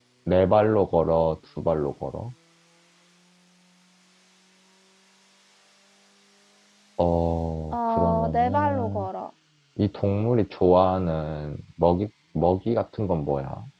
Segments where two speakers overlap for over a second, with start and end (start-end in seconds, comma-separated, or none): 7.7-9.1